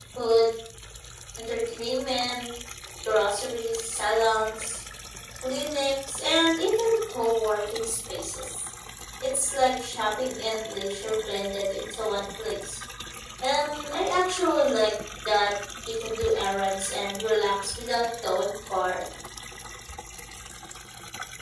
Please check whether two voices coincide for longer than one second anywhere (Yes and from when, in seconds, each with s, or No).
No